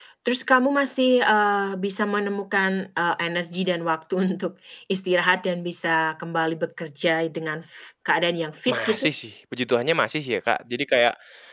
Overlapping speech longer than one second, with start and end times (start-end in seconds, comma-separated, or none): none